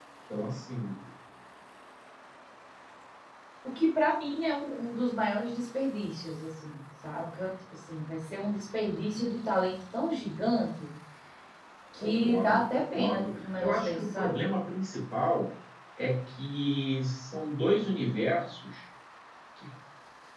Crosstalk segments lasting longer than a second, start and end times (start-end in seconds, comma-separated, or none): 12.0-14.4